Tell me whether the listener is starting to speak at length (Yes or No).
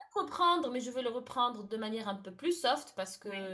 No